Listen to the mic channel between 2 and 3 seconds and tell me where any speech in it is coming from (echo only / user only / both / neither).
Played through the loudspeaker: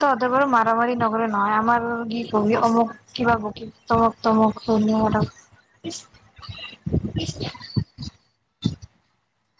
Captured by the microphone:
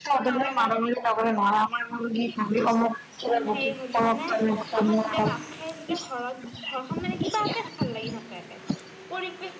echo only